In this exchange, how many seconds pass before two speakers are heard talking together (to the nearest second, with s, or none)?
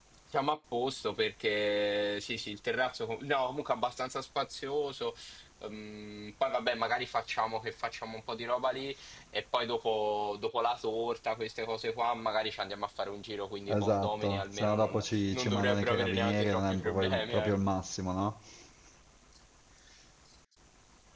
14 s